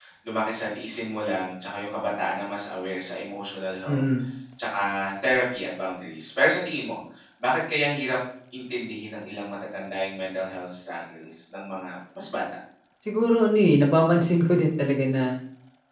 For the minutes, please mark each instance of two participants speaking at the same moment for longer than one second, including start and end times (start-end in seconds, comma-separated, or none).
none